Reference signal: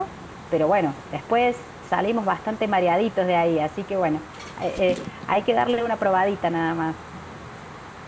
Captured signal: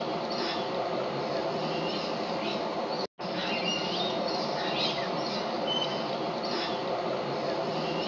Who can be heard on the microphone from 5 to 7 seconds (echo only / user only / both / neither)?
neither